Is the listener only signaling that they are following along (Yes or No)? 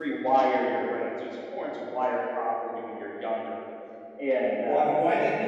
No